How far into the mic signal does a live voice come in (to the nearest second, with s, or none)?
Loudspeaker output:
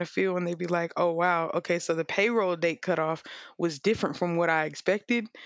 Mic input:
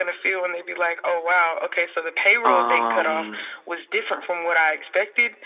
2 s